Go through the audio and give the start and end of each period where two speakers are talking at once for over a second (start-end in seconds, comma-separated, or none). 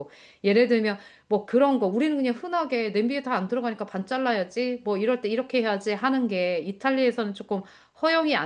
none